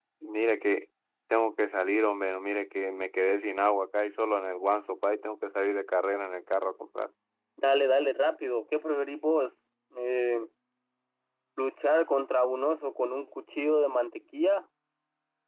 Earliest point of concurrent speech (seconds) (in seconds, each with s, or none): none